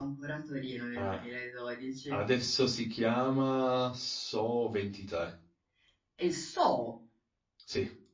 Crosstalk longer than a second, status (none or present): none